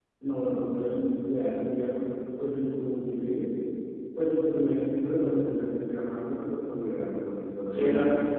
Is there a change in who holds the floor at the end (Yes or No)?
Yes